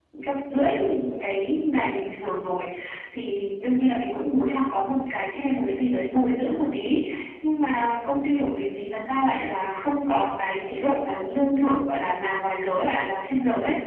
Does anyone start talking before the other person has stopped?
No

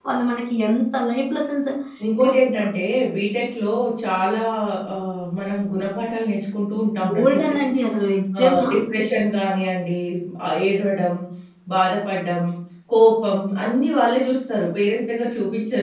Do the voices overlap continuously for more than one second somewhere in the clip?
No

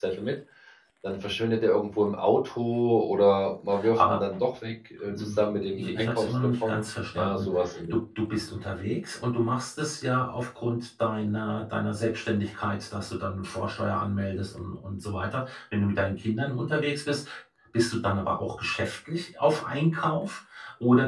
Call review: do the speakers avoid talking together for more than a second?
No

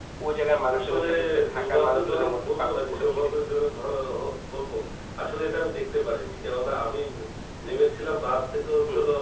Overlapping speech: Yes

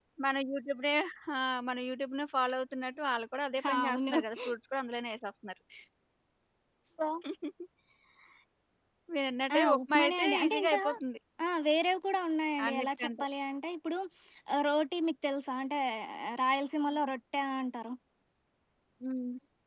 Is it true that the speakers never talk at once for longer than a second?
No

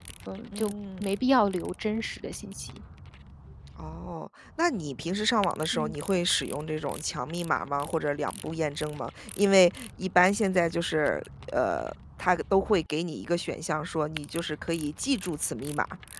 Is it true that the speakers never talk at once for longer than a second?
Yes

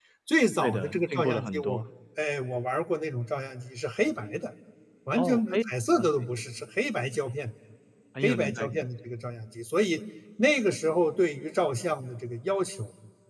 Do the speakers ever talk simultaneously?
Yes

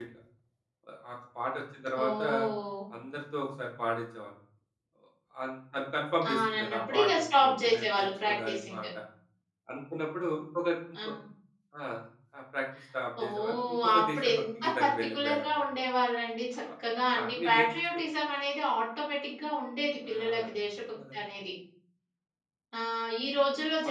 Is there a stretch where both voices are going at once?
Yes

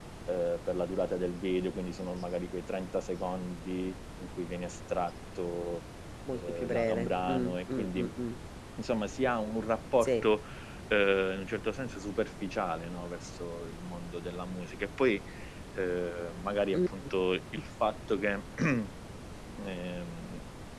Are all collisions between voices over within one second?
No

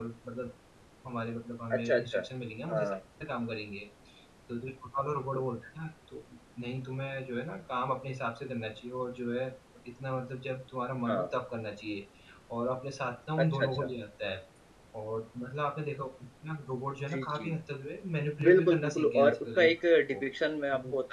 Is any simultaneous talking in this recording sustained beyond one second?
Yes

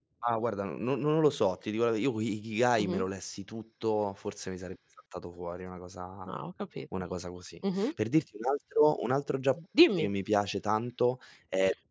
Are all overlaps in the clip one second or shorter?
Yes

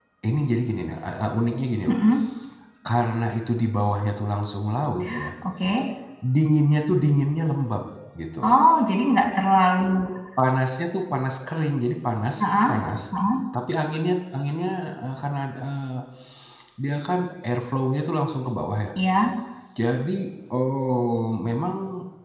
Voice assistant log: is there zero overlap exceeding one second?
Yes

